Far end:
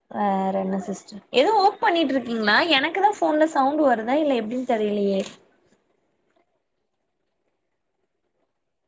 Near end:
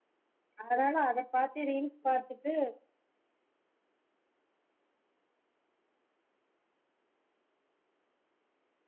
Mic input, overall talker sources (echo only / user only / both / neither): user only